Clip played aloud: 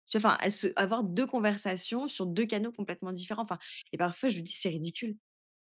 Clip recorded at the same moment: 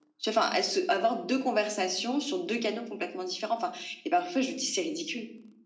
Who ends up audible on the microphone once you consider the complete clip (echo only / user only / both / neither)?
echo only